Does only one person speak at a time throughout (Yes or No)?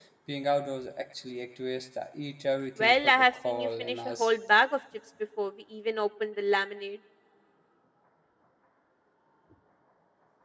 No